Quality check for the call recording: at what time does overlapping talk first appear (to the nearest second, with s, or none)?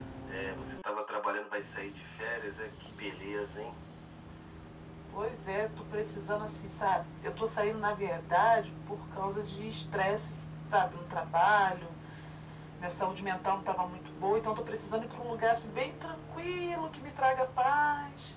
none